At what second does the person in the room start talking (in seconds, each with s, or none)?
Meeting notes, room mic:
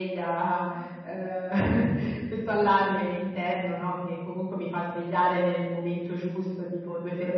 none